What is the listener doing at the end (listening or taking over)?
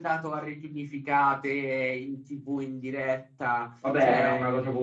taking over